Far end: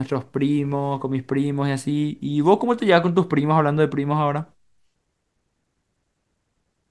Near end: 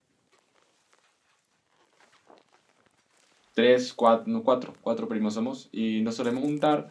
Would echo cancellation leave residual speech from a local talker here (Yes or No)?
Yes